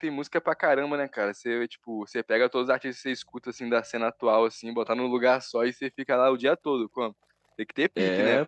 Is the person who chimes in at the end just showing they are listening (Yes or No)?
Yes